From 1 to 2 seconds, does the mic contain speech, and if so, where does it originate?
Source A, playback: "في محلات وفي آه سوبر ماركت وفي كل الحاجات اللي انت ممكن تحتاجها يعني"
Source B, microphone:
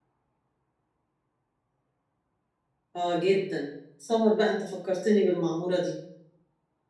neither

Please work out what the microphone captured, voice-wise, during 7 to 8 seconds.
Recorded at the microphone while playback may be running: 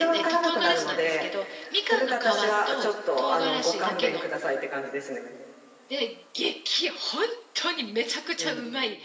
user only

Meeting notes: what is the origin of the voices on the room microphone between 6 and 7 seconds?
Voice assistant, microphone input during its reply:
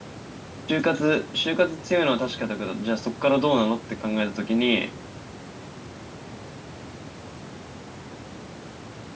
neither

